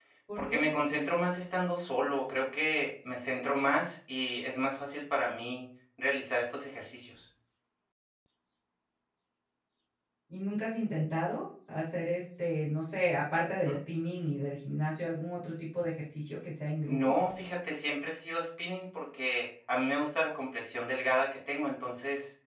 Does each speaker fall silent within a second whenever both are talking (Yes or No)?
Yes